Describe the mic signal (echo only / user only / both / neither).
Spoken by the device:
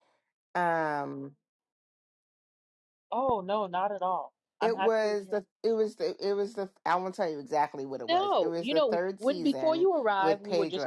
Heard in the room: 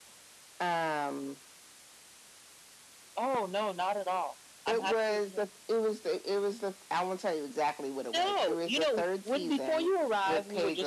echo only